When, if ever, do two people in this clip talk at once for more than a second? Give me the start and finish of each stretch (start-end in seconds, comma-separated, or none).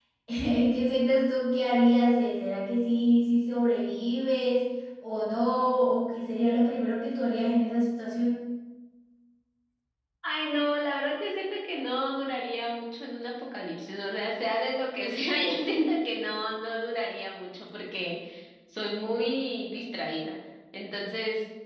none